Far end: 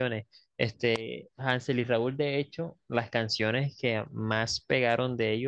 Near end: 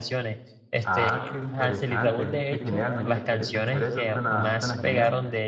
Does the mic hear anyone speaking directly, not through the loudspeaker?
Yes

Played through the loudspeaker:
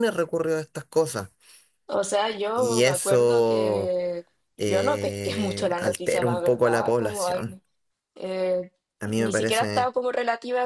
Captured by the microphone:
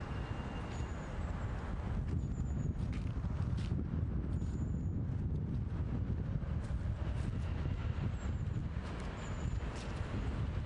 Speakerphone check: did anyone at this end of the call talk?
No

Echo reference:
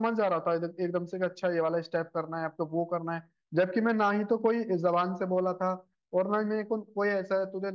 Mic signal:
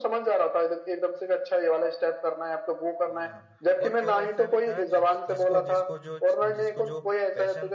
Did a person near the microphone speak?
Yes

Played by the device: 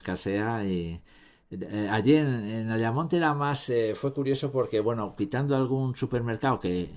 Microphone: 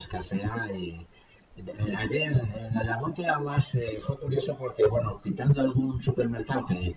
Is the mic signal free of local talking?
Yes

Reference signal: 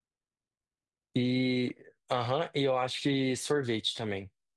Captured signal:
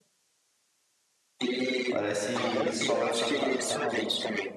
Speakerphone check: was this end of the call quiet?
No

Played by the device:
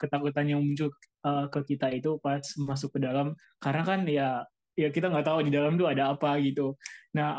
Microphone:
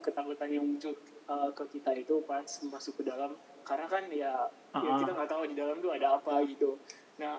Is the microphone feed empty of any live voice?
No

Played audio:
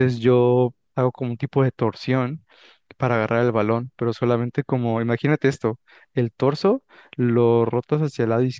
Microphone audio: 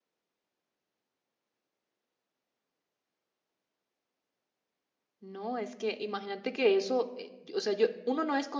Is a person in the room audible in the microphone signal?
Yes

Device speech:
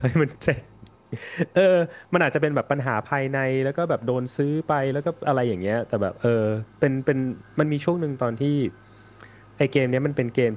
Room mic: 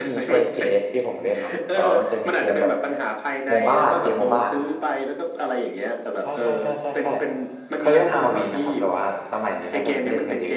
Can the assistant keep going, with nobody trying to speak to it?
No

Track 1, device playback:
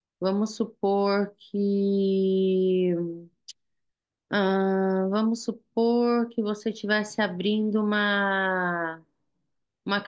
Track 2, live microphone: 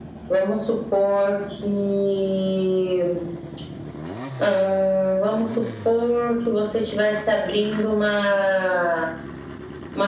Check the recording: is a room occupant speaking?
No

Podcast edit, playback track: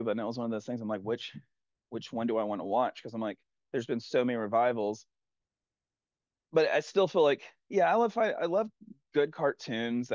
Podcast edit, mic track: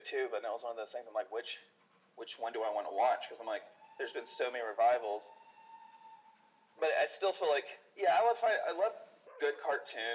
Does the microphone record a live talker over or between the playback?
No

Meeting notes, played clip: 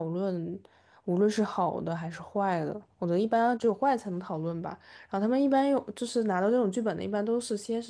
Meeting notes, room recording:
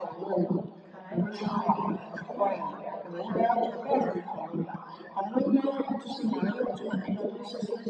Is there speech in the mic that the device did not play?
Yes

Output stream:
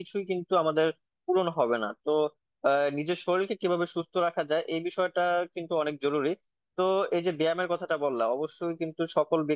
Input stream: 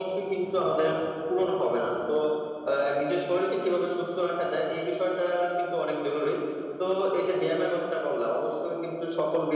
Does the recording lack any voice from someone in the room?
Yes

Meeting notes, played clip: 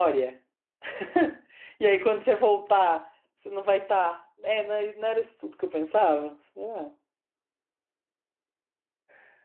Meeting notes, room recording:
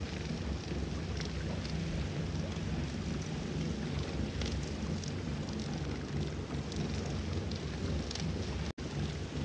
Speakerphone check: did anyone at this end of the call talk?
No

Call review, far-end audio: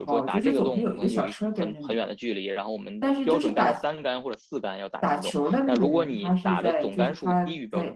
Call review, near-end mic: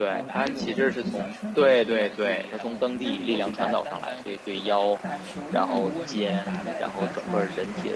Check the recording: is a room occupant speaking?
Yes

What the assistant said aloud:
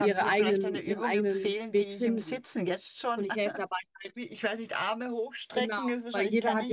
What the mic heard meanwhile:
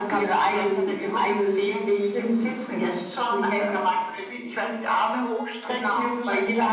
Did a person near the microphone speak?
No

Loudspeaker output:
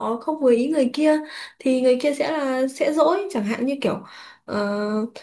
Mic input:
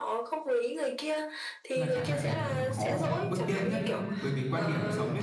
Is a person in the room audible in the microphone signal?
Yes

